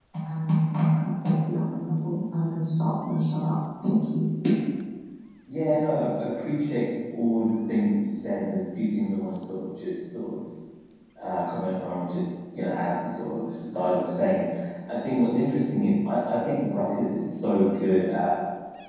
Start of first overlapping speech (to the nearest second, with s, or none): none